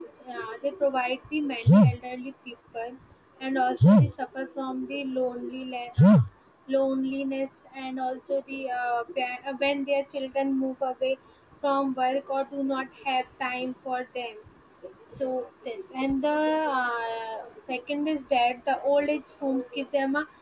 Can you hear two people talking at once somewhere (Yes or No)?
No